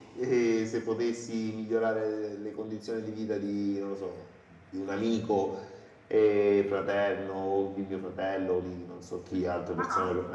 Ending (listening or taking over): listening